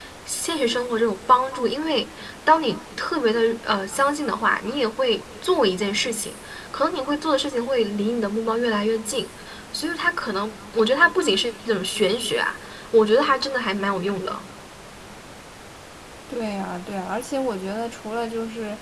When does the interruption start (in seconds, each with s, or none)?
none